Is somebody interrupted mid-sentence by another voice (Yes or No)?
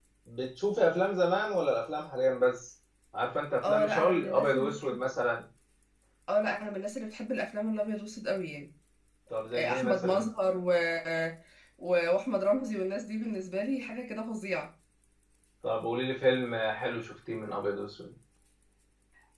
Yes